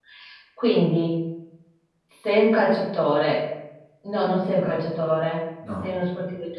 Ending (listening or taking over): listening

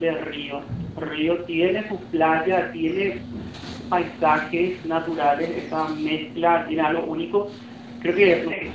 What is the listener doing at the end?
listening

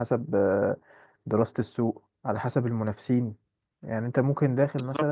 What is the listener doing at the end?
listening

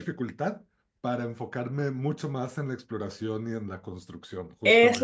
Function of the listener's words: taking over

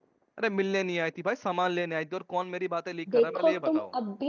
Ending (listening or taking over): taking over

